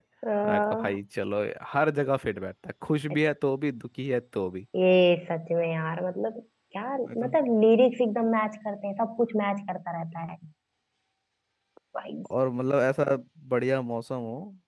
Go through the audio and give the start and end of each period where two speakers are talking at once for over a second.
none

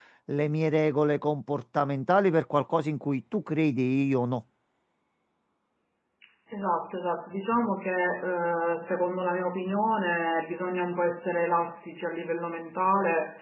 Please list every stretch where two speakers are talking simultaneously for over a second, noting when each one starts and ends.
none

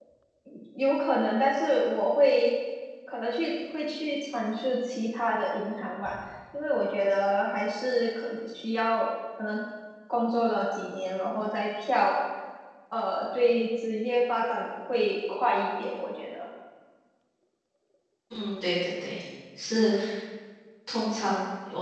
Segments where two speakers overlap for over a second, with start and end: none

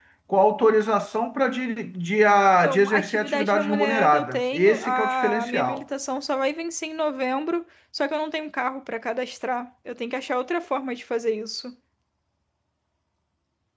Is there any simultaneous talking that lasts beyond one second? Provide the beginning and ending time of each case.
2.6-5.8

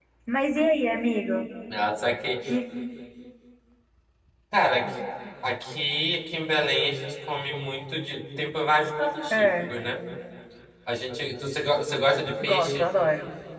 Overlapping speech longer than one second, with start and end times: none

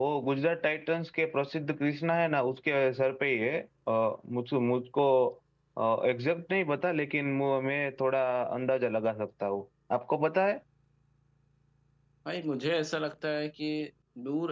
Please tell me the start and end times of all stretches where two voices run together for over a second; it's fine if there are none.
none

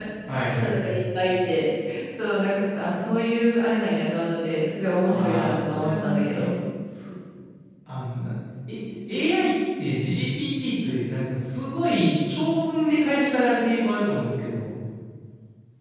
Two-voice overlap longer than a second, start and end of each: 5.1-6.5

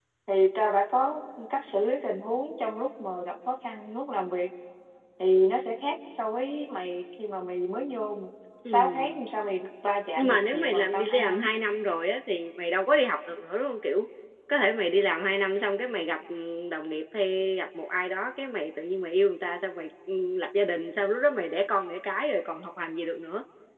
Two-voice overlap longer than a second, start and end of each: 10.2-11.5

